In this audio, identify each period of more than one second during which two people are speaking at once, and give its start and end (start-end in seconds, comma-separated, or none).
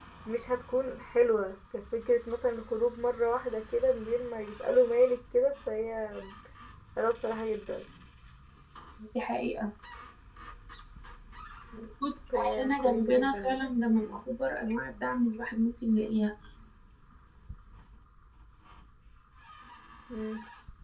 12.6-14.2